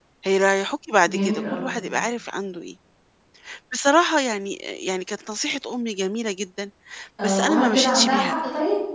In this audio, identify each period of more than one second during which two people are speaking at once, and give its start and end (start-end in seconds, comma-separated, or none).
7.2-8.5